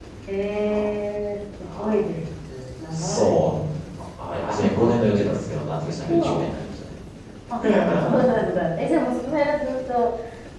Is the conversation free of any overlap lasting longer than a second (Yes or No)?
Yes